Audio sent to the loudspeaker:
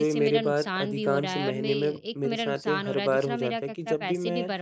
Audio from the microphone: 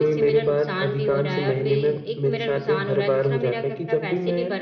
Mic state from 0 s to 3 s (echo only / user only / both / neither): echo only